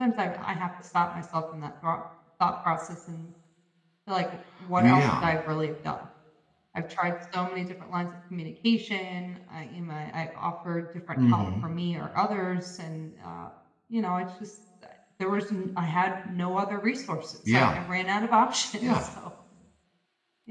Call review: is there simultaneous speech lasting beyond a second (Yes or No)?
No